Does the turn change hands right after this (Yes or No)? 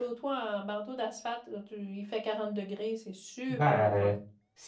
Yes